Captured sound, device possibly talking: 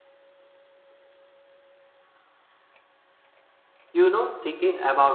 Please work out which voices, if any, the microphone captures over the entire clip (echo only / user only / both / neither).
user only